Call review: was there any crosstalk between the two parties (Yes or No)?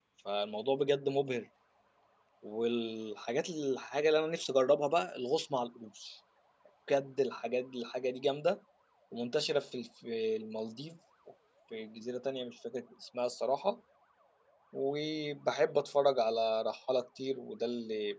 No